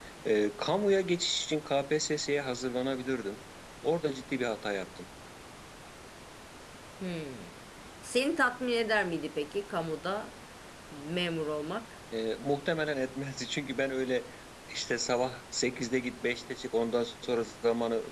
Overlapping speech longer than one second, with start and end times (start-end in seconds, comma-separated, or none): none